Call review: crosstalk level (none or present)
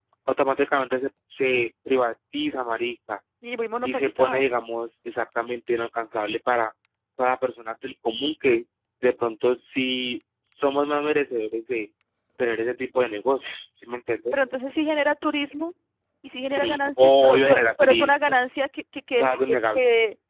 present